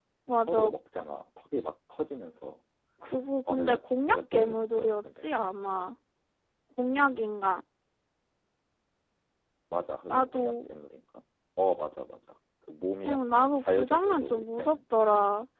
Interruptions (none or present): present